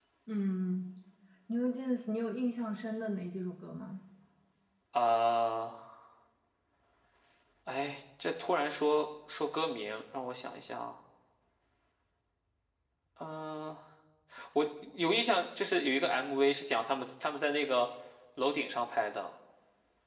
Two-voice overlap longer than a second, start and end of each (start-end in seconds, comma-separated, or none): none